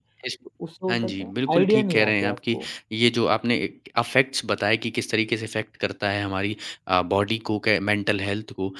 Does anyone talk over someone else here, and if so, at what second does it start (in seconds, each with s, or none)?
0.9 s